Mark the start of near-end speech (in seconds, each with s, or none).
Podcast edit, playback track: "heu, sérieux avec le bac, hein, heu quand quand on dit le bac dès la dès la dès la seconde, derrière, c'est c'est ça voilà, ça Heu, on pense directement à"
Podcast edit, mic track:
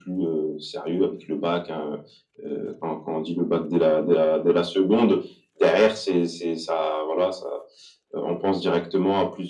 none